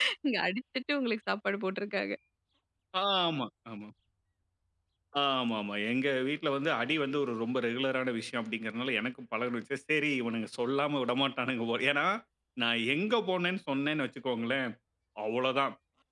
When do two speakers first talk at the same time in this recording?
none

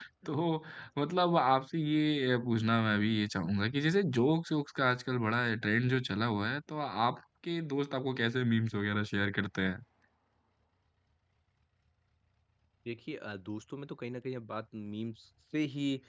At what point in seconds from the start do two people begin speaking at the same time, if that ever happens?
none

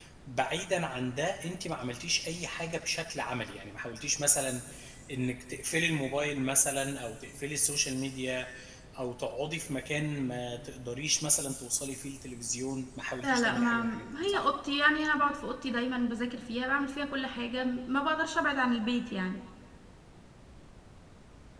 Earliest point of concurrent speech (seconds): 13 s

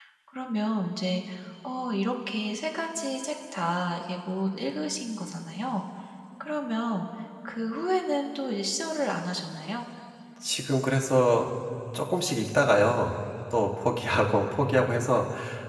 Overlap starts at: none

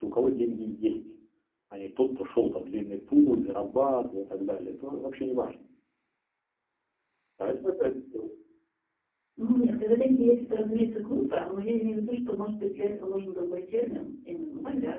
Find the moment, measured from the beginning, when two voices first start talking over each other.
none

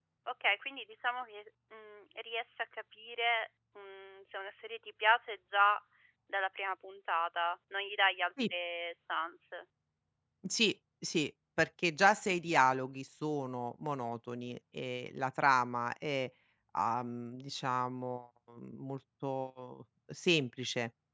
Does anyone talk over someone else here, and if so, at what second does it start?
none

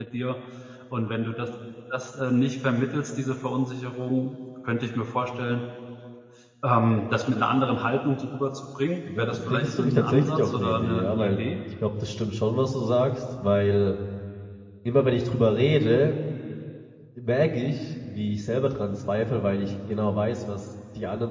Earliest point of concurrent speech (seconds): 9 s

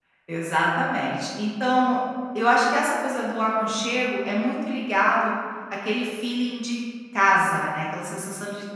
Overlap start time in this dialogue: none

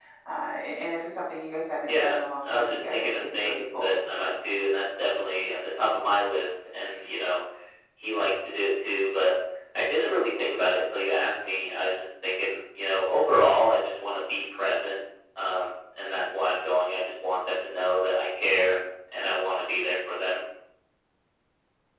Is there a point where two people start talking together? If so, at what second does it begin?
2 s

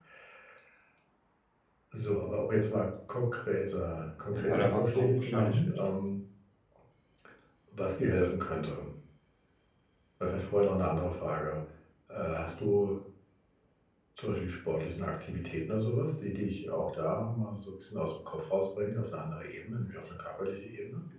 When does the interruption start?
4 s

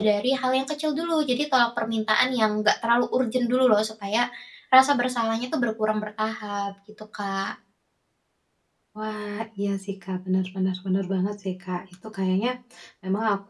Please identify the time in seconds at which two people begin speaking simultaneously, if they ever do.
none

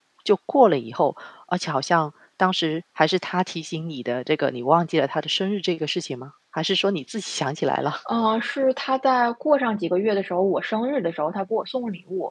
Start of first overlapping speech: none

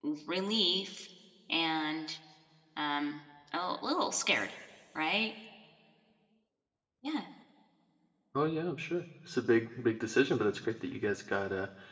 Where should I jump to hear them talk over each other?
none

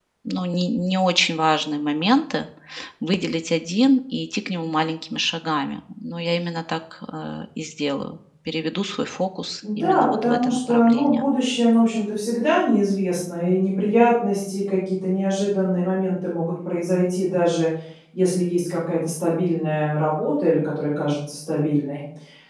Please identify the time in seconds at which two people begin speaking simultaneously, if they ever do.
10 s

